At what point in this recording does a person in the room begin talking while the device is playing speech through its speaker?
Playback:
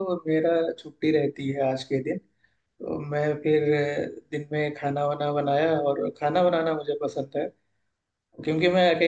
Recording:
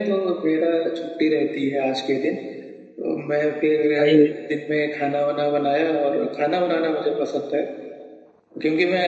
3.8 s

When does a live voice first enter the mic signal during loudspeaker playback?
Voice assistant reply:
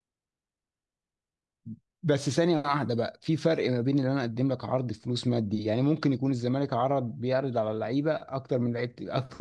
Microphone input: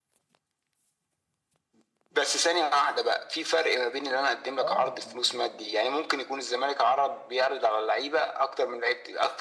4.6 s

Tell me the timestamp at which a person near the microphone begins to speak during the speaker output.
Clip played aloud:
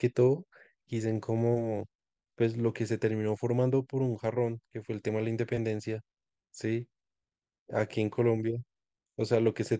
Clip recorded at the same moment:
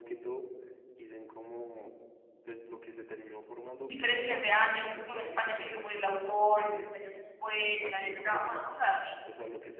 3.9 s

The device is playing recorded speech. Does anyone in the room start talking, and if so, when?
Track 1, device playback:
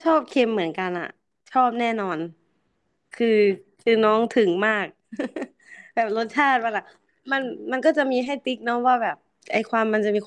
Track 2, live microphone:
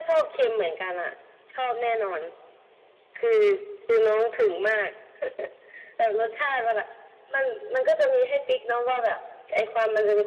none

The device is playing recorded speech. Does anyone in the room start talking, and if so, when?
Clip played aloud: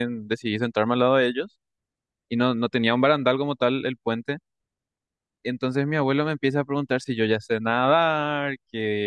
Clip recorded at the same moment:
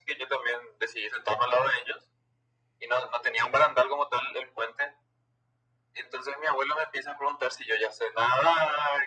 none

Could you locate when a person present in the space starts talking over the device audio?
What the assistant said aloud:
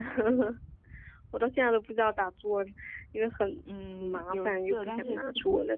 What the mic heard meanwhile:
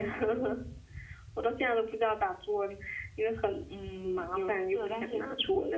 none

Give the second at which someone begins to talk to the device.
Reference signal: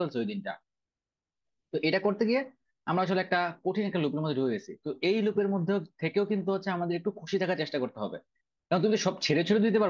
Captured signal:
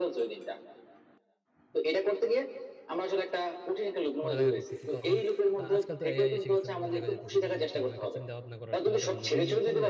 4.2 s

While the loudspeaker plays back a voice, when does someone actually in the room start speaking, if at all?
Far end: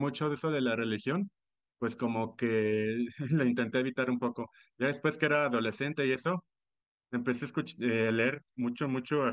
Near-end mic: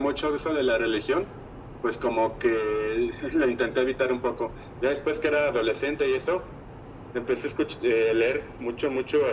none

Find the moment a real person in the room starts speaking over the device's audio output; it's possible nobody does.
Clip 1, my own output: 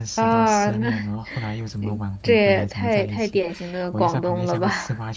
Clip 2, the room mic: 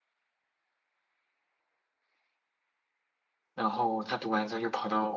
3.5 s

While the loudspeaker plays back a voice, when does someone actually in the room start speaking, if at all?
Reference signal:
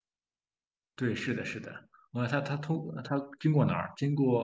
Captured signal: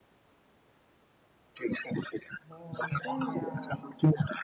2.5 s

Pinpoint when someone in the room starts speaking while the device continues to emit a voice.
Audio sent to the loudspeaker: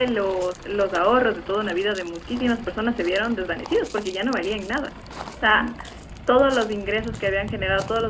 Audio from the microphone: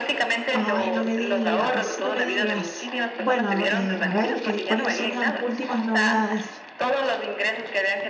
0.5 s

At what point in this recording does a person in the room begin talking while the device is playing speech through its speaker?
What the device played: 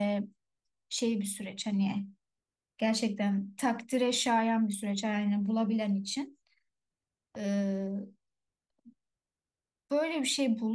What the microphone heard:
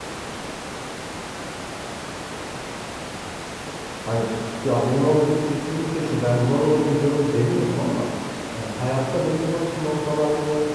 4.0 s

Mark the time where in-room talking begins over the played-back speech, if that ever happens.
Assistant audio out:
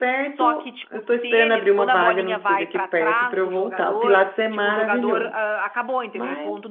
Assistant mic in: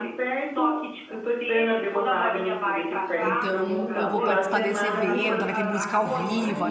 3.2 s

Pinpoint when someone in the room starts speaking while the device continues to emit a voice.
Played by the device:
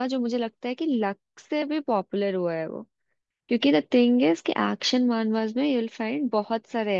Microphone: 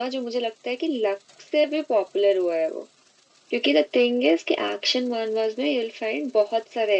none

